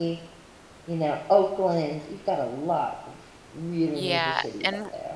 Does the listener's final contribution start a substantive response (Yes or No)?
Yes